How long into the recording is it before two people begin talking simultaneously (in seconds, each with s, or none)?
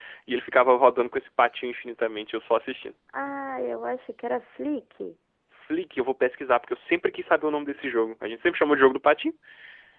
none